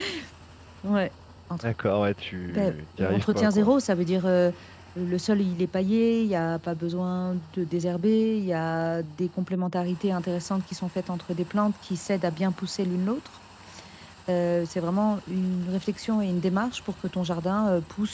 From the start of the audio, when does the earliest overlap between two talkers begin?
2 s

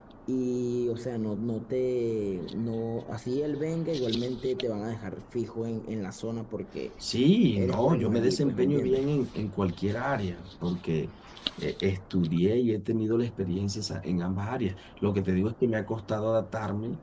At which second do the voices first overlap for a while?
8 s

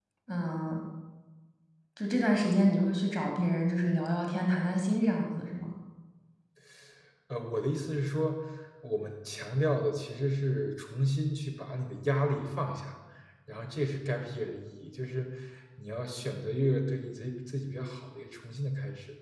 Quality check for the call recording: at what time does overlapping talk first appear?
none

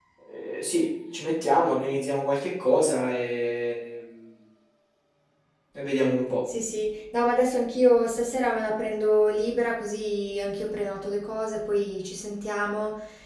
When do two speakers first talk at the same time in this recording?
none

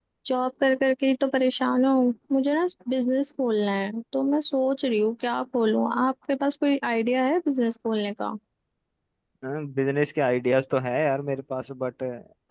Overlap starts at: none

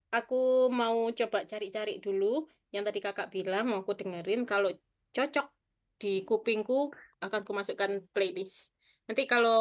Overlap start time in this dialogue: none

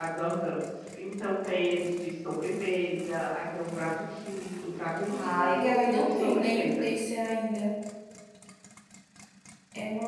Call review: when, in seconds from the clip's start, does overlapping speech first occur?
5 s

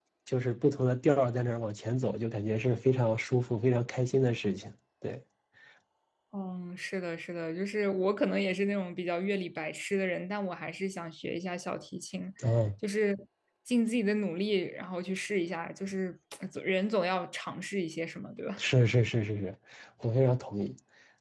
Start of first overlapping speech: none

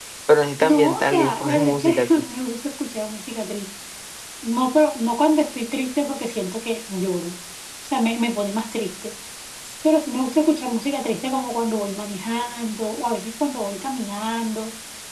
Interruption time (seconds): 1 s

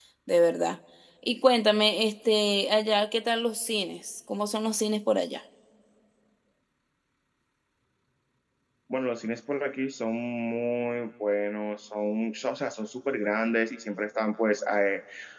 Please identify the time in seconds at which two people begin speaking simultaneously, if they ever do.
none

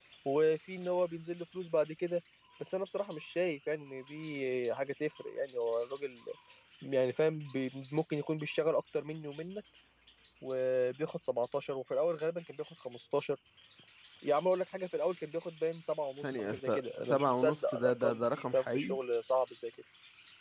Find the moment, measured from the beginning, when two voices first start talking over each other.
16 s

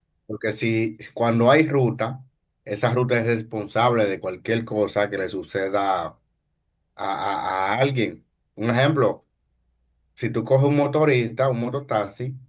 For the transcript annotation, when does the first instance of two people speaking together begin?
none

